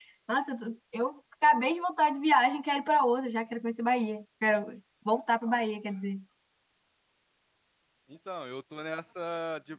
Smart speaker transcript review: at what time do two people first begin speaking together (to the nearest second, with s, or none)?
none